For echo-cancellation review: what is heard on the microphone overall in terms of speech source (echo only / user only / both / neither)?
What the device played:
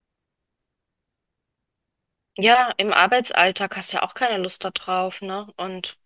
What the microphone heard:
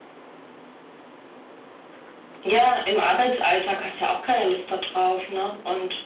echo only